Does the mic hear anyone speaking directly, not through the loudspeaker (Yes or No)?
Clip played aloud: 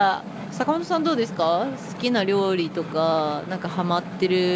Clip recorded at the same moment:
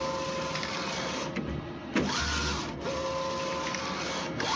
No